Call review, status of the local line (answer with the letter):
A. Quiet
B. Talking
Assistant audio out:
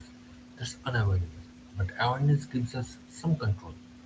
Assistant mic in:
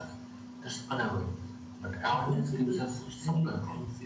B